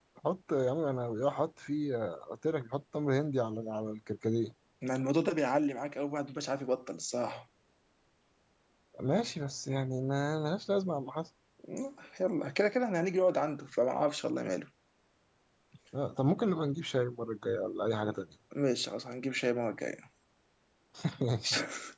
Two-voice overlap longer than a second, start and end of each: none

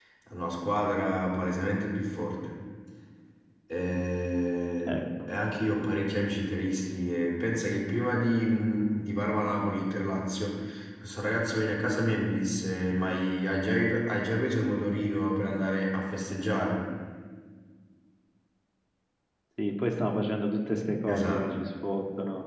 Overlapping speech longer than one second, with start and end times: none

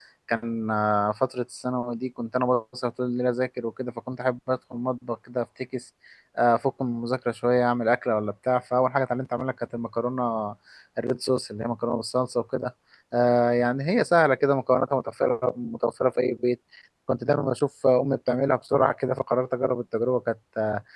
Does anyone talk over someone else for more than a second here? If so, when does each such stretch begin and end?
none

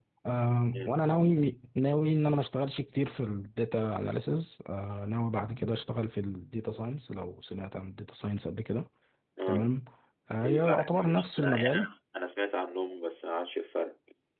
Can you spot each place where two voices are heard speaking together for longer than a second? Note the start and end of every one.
10.4-11.9

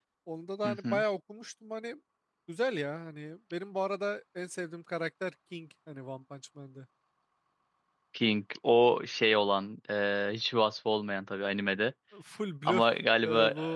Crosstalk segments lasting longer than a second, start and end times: none

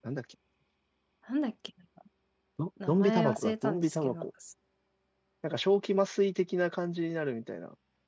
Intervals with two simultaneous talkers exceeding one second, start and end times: 2.9-4.2

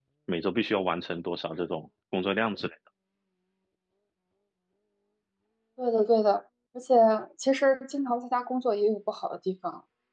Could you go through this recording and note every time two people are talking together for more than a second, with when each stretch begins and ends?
none

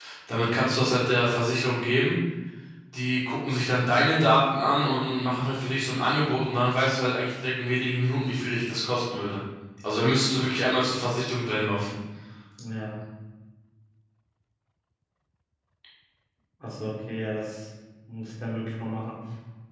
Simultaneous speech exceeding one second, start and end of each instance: none

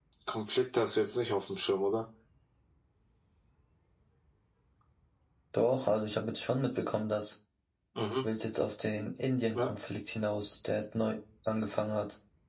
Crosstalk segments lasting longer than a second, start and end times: none

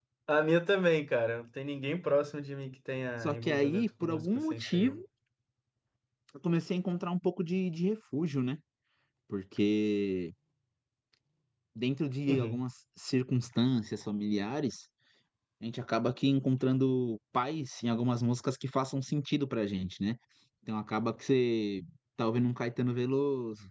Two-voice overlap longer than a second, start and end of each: 3.2-5.0

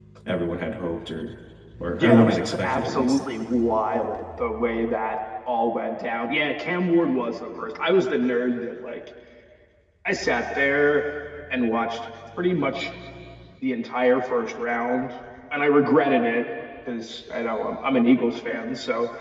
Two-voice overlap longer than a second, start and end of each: 2.0-3.2

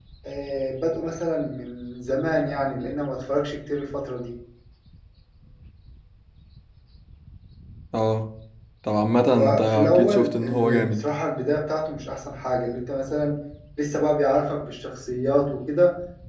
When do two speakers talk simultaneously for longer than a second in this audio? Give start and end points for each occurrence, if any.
9.3-11.0

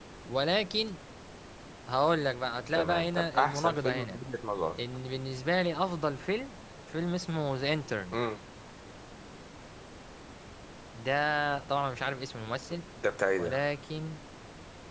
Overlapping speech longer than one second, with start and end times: 2.7-4.2

